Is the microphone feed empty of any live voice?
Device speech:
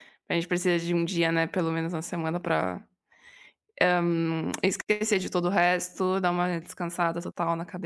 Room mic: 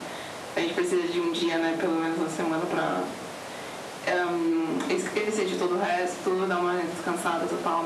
Yes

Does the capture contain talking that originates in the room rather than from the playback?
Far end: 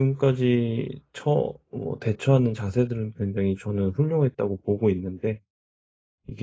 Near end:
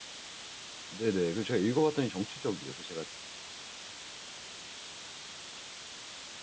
Yes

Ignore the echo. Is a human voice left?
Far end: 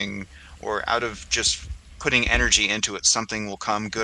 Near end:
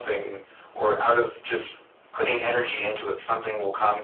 No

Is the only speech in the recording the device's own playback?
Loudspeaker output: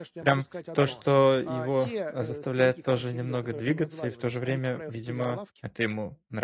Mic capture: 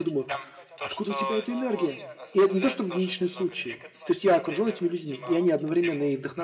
No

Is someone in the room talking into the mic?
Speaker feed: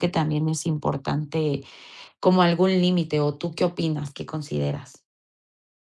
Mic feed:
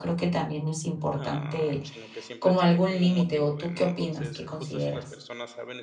Yes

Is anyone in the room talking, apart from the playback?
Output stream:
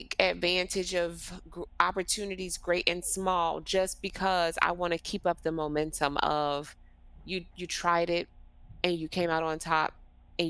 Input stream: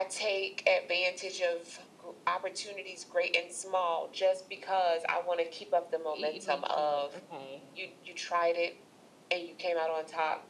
Yes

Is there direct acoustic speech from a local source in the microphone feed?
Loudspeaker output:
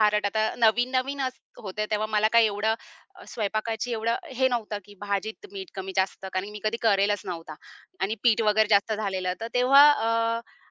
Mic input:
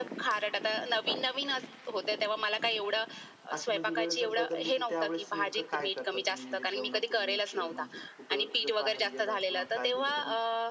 Yes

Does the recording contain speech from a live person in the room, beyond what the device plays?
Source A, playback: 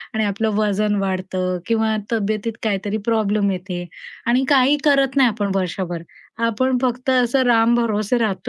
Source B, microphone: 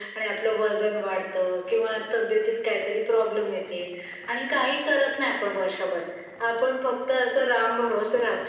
No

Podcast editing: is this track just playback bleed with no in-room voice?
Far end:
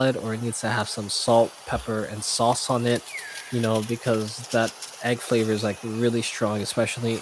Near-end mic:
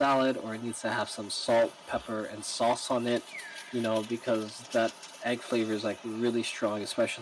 Yes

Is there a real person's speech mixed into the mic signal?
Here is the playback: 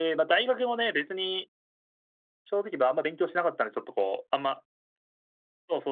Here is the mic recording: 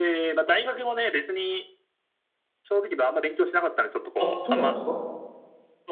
Yes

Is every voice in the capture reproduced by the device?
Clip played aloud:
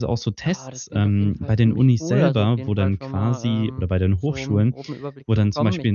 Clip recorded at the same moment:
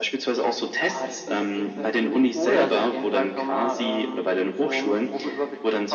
Yes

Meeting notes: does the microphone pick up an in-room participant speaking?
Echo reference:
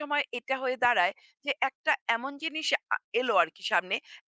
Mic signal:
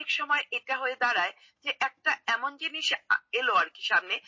No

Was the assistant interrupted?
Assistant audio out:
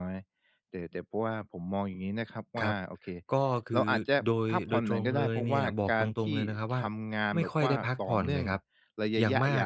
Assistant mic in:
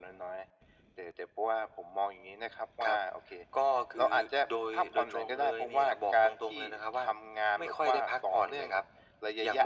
No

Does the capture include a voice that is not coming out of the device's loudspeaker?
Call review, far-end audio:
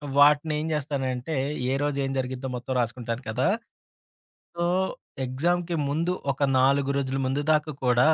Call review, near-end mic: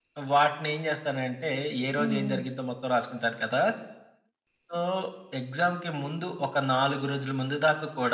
Yes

